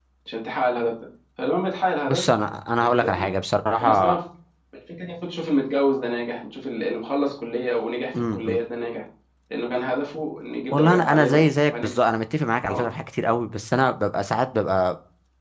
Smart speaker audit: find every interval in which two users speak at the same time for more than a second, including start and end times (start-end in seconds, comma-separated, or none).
10.7-11.9